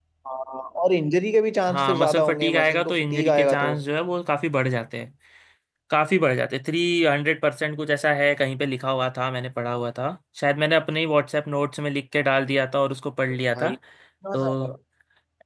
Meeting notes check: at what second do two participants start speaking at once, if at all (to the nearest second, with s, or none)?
2 s